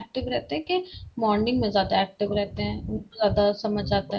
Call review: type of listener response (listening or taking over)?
taking over